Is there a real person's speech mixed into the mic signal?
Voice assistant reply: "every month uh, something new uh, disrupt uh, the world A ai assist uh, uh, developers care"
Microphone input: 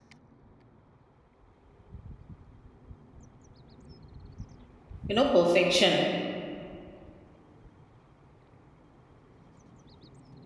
Yes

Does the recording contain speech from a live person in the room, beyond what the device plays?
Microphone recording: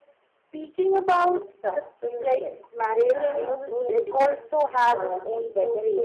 Yes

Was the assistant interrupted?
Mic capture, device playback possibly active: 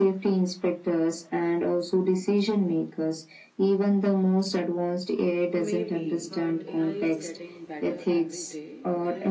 Yes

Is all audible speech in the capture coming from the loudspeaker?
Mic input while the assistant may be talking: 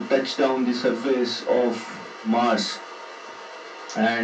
Yes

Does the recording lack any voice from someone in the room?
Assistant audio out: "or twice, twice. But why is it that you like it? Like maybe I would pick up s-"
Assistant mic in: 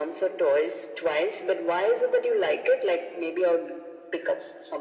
Yes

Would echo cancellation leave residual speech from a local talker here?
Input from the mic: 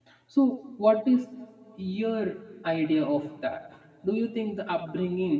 Yes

